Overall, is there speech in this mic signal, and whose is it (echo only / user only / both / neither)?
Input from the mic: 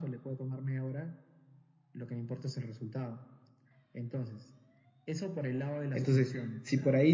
both